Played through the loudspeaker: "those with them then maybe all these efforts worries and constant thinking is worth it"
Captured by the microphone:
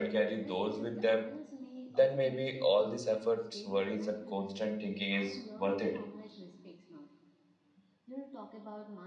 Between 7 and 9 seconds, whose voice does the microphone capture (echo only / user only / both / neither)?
user only